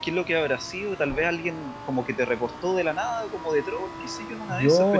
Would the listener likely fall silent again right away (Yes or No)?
Yes